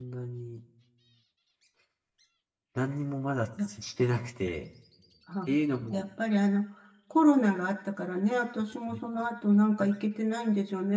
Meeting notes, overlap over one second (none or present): none